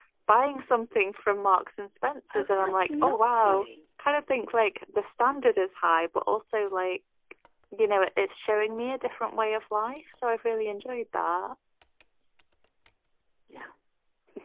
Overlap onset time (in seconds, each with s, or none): 2.3 s